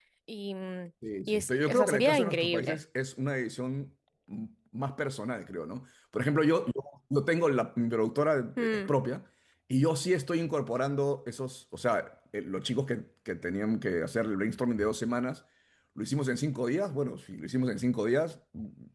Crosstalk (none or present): present